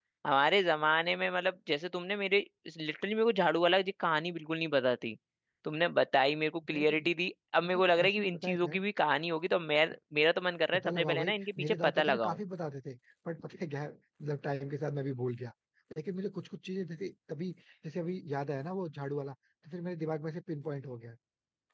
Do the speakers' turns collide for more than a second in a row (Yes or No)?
Yes